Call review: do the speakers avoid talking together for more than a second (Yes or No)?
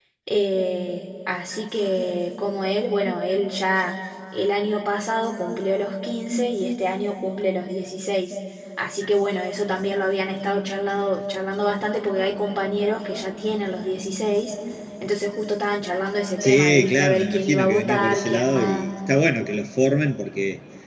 No